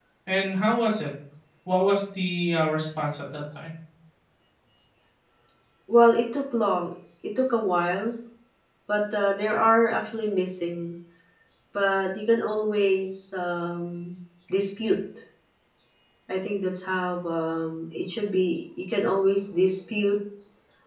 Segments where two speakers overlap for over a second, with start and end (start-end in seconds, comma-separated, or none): none